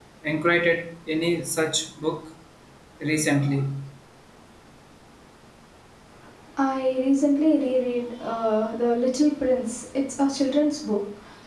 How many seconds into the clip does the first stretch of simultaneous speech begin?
none

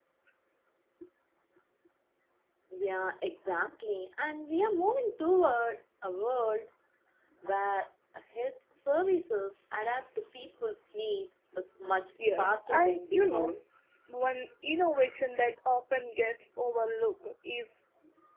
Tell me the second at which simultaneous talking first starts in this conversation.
12.2 s

